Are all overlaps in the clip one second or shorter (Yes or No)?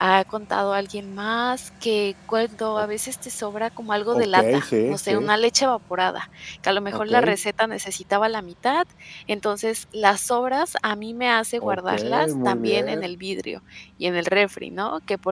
No